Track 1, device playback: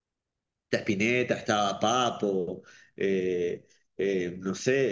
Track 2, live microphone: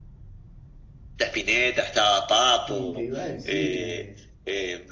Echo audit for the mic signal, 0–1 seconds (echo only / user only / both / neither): neither